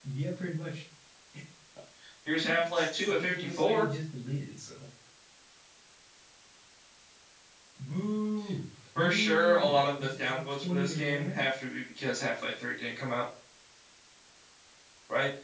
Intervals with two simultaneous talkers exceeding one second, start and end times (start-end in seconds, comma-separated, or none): 2.4-3.9, 9.0-11.4